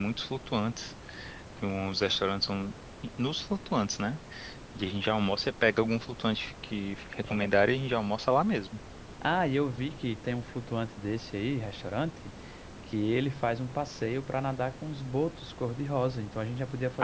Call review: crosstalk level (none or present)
none